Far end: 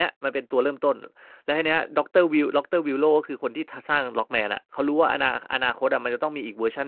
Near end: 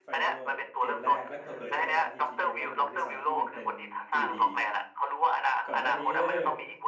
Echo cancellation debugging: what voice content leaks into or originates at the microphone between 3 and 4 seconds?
both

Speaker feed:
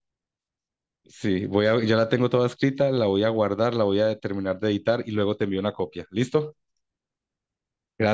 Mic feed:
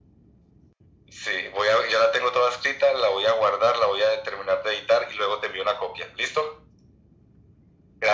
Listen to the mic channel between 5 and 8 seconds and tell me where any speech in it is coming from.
echo only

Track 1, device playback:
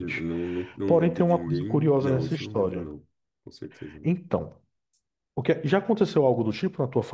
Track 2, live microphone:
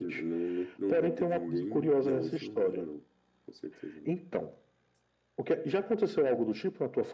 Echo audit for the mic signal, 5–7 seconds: echo only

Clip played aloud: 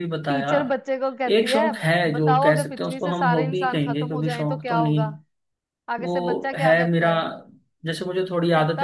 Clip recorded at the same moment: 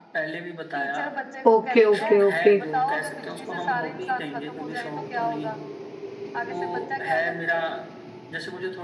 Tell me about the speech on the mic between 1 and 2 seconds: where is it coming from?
both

